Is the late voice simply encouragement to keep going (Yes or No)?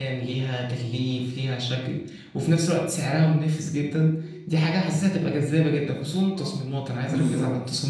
Yes